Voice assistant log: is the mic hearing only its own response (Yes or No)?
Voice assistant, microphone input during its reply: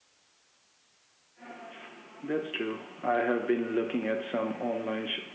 Yes